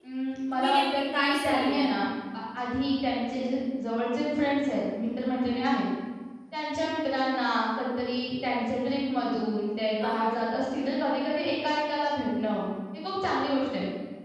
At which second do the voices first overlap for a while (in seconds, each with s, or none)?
0.5 s